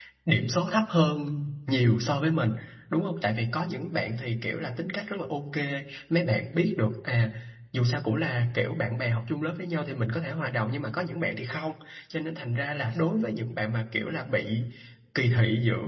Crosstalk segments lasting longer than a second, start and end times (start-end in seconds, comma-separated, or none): none